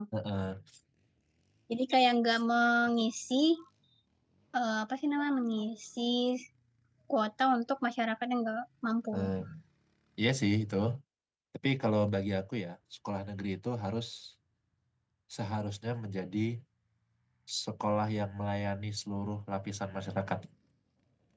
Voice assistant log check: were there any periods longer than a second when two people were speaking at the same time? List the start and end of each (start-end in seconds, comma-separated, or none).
none